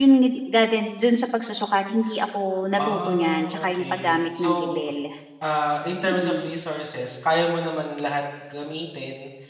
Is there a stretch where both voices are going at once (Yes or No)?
Yes